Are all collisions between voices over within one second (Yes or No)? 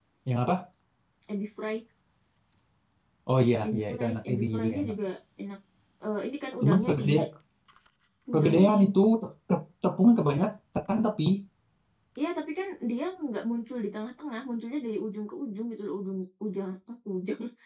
No